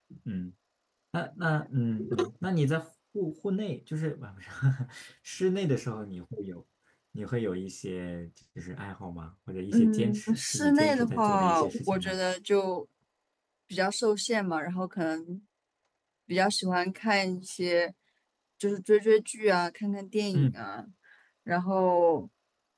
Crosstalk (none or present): present